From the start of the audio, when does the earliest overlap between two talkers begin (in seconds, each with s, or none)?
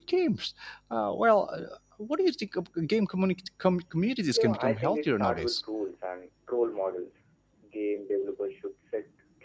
4.3 s